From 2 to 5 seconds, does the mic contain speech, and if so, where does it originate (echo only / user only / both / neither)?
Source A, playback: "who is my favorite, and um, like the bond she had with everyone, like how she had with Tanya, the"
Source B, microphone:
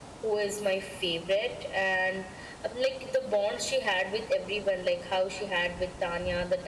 echo only